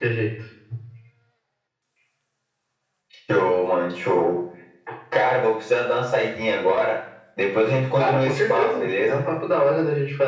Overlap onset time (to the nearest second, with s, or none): 8 s